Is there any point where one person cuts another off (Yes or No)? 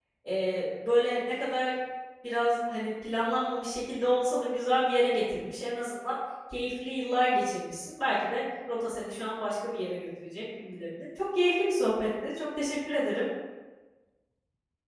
No